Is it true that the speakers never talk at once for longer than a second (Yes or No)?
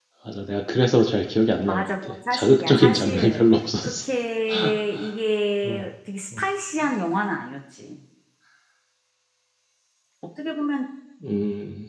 No